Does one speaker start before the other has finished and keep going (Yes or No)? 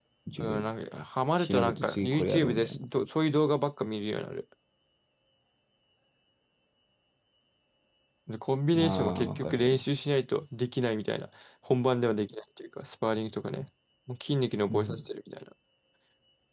Yes